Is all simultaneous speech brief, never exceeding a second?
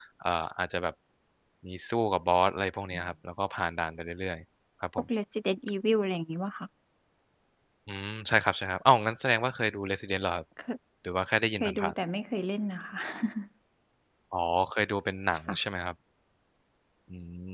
Yes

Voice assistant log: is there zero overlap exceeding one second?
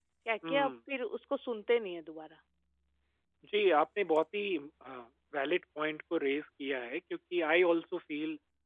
Yes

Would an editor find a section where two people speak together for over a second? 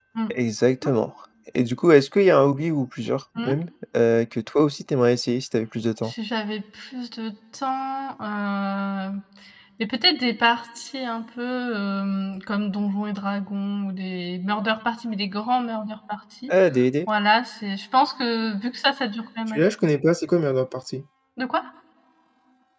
No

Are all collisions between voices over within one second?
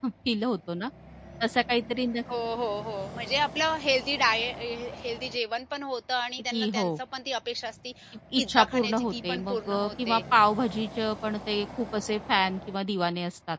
No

